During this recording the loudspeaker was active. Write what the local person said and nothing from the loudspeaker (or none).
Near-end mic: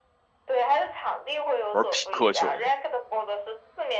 玩匹克球嘛。